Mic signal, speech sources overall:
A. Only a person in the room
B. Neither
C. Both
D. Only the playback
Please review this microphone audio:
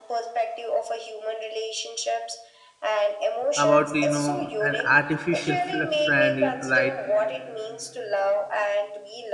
C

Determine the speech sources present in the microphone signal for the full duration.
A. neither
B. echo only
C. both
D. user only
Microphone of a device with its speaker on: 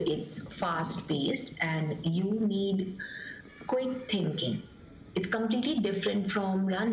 B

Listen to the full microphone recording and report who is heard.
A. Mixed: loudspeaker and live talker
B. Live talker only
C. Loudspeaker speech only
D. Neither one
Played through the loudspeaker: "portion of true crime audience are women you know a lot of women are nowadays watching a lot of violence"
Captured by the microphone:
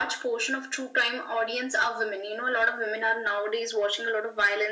C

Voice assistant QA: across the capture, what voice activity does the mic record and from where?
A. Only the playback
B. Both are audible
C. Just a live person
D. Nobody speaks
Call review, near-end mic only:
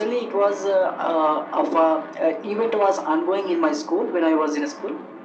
A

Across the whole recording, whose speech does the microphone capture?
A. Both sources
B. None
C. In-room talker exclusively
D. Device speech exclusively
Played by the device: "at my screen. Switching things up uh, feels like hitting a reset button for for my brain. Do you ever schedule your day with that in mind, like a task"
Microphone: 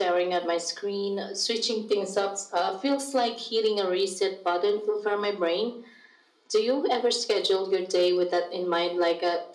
D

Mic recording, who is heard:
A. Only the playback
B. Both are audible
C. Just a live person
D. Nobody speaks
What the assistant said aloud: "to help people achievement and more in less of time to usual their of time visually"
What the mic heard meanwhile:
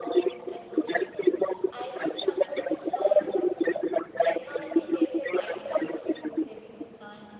B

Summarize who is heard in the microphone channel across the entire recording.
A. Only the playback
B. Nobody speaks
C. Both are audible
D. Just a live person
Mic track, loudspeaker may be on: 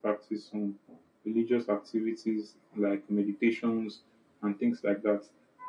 A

